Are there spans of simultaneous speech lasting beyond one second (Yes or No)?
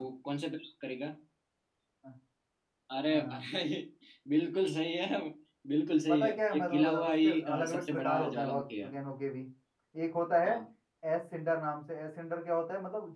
Yes